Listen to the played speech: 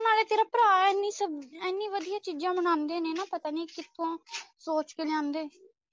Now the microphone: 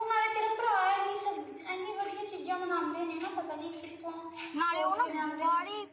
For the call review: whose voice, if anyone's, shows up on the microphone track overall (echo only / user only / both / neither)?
both